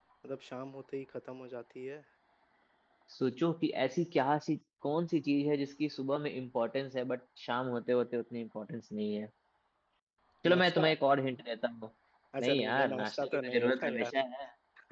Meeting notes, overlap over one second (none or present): present